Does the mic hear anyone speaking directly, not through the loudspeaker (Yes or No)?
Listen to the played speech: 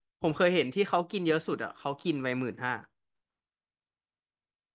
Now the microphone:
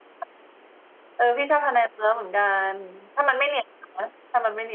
Yes